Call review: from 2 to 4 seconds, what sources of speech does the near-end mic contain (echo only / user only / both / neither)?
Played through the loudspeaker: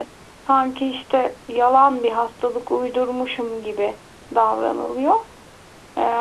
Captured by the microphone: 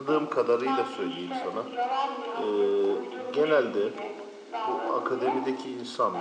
both